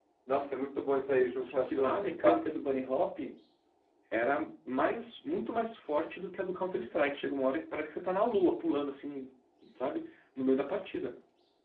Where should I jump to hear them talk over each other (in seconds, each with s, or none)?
1.2 s